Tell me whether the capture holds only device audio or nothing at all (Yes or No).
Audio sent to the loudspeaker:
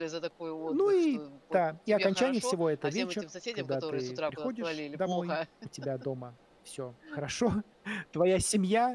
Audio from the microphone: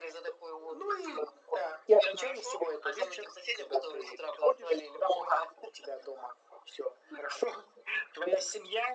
Yes